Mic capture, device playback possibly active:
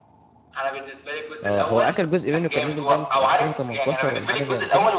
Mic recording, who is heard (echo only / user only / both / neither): both